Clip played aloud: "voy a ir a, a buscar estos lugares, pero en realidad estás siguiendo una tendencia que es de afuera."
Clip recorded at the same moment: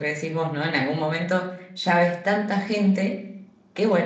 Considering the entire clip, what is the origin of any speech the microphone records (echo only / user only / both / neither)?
user only